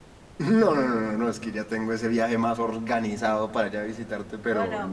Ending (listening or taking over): taking over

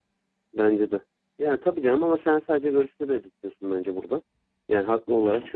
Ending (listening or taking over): listening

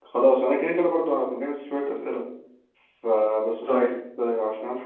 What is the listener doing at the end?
listening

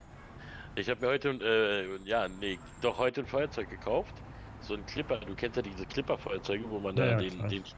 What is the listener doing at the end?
listening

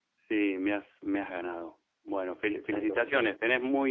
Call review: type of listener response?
listening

